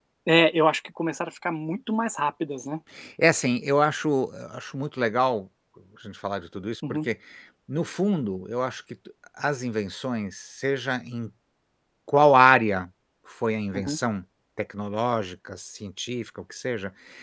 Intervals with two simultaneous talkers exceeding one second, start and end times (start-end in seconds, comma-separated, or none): none